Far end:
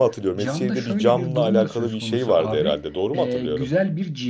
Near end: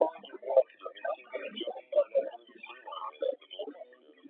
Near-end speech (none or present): none